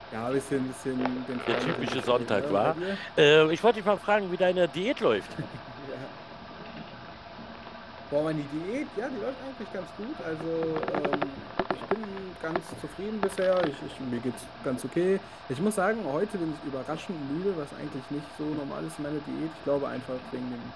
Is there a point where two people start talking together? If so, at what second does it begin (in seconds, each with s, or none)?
1.5 s